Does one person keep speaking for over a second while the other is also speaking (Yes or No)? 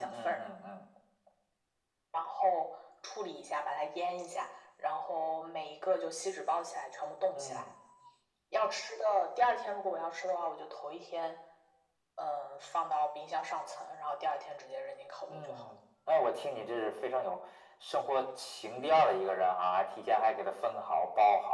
No